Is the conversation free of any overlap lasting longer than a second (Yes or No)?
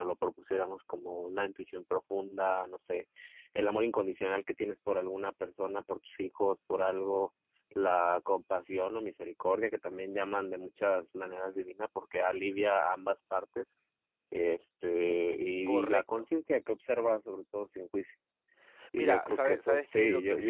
No